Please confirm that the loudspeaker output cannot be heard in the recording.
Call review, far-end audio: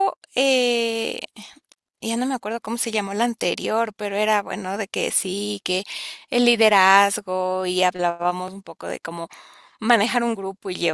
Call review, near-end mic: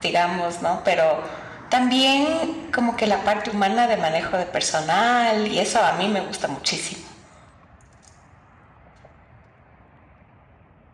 Yes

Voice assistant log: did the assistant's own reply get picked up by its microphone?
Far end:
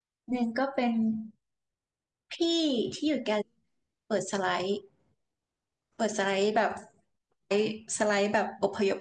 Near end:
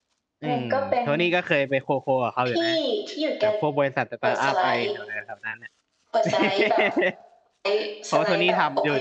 Yes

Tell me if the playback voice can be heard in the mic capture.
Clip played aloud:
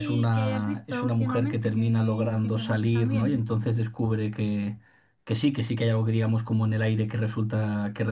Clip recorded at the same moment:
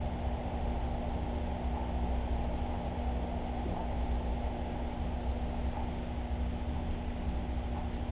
No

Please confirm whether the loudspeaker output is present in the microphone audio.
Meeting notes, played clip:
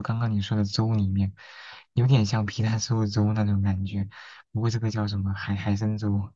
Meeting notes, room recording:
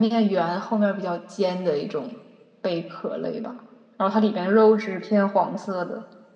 No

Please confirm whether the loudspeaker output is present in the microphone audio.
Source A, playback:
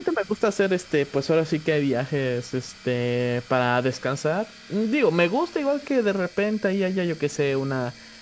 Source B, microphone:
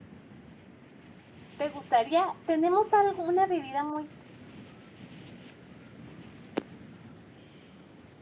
No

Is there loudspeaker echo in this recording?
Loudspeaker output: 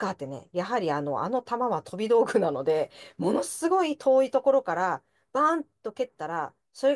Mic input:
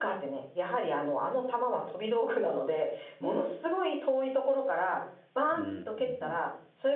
Yes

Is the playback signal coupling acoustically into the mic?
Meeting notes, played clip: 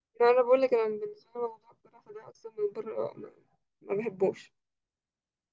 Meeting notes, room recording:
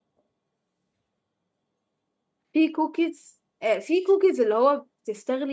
No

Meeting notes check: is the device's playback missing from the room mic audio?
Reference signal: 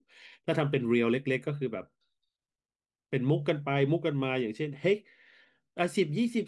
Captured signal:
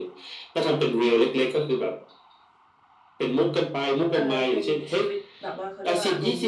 No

